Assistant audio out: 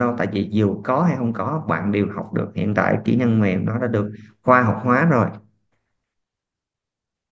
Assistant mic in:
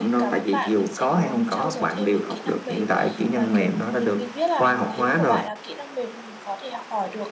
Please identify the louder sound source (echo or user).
echo